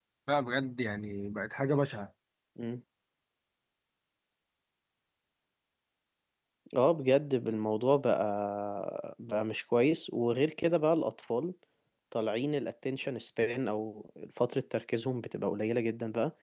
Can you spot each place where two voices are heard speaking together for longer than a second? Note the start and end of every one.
none

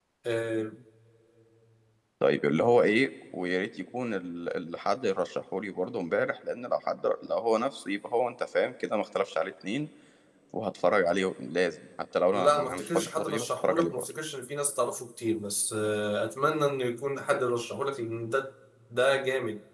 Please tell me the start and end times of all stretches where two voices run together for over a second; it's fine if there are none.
12.3-14.0

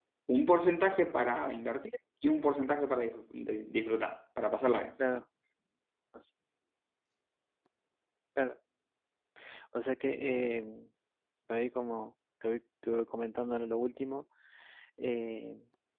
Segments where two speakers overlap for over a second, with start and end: none

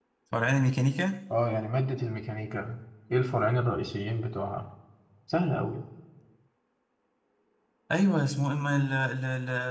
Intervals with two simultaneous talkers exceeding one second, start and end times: none

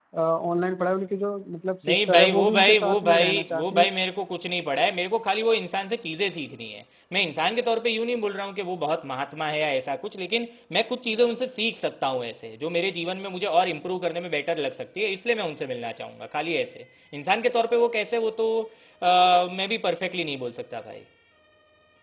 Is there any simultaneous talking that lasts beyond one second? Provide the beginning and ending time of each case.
1.9-3.9

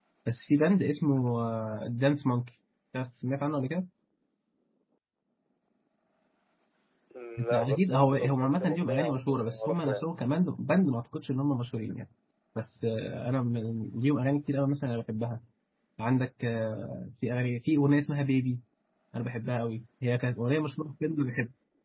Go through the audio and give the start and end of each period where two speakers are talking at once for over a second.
7.4-10.0

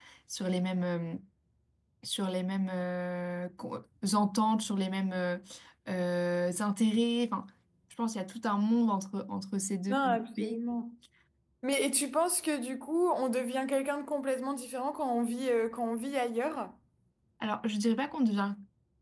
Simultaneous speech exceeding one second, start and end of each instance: none

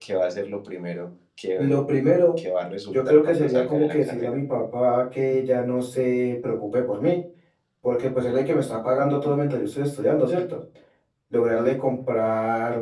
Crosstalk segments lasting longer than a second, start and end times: 2.9-4.4

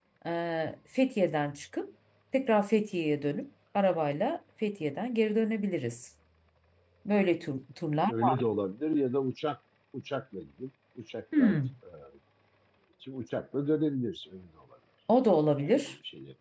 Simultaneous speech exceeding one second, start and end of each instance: none

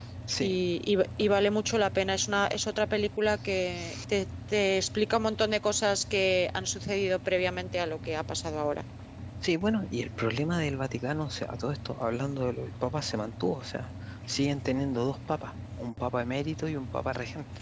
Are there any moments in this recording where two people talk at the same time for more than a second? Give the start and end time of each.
none

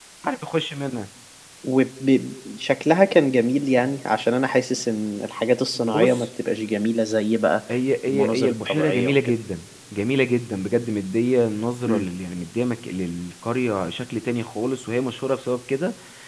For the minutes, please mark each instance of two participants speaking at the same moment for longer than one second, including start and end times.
8.1-9.3

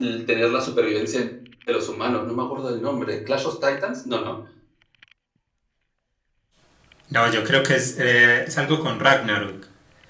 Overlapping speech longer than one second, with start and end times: none

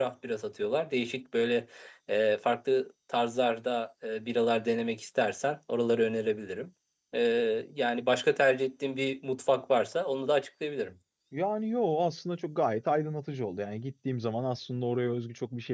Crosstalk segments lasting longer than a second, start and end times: none

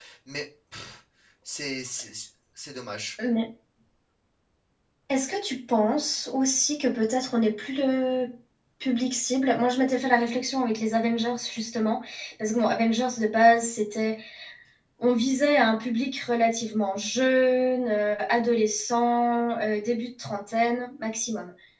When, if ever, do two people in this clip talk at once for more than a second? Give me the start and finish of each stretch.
none

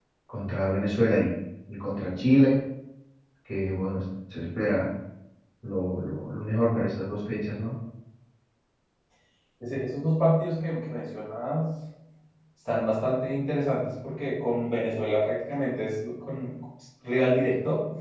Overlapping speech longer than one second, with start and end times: none

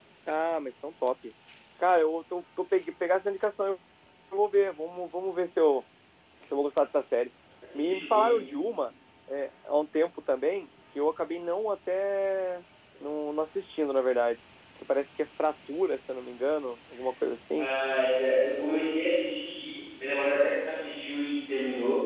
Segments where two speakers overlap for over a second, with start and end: none

